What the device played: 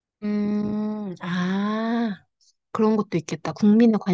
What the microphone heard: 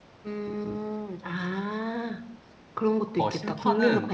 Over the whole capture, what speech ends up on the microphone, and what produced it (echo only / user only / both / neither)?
both